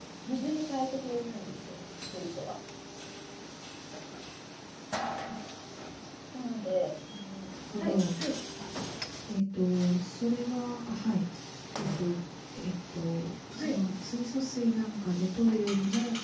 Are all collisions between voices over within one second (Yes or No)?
Yes